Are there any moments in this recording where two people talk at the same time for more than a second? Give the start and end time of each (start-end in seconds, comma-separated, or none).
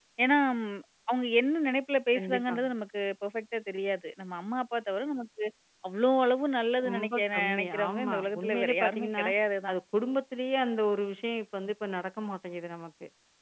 6.8-9.2